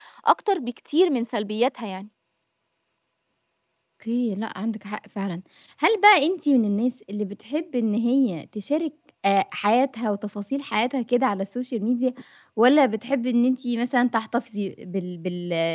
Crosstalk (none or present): none